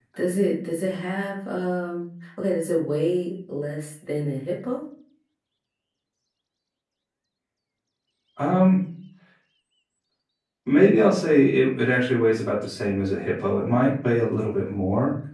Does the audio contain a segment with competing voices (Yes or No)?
No